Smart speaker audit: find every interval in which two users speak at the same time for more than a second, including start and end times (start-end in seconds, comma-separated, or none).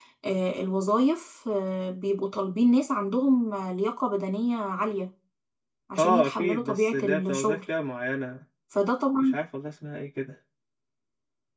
6.0-7.6